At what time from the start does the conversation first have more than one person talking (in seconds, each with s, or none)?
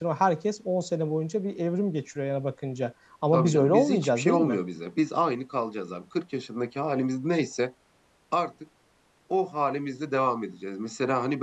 3.3 s